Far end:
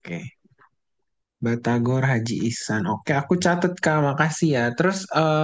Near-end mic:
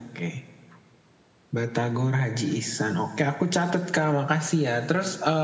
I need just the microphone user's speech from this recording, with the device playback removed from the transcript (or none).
none